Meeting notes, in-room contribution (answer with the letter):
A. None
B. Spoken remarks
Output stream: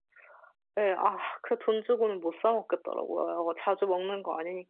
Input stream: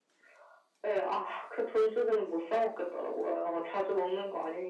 A